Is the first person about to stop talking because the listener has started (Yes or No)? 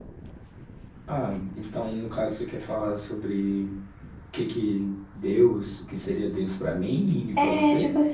Yes